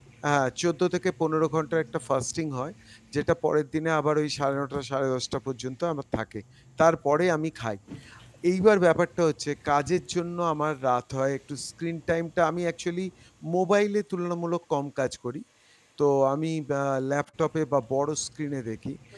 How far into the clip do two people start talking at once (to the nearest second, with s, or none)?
none